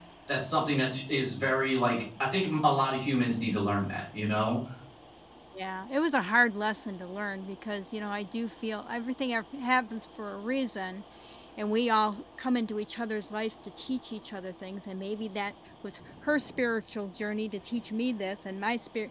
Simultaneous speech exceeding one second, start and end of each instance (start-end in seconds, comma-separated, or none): none